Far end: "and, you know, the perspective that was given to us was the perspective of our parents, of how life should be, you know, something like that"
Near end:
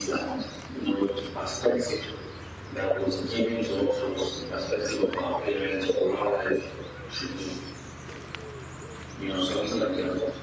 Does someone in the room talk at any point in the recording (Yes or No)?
No